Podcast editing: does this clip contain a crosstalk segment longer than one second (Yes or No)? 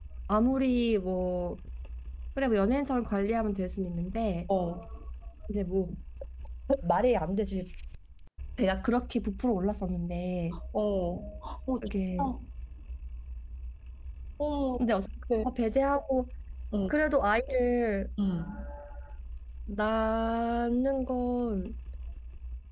No